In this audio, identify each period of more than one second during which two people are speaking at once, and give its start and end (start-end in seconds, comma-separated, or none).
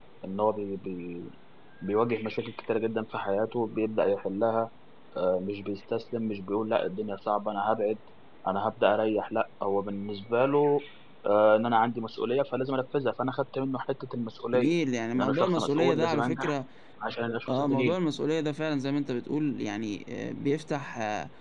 15.2-16.5